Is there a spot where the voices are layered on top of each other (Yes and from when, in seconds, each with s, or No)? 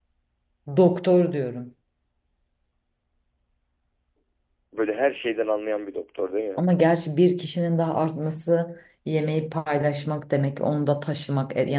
No